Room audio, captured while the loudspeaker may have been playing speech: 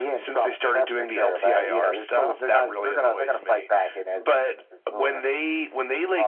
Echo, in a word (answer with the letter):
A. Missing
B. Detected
B